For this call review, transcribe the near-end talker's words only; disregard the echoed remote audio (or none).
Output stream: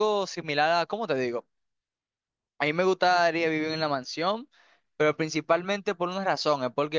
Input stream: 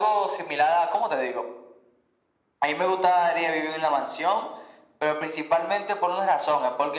none